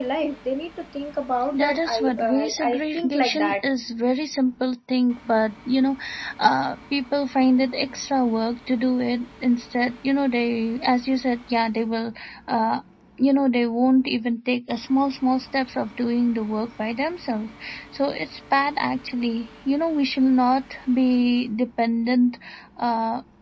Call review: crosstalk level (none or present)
present